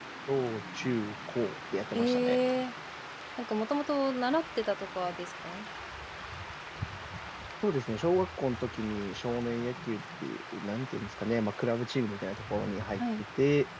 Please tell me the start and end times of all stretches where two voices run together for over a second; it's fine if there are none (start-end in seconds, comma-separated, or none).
none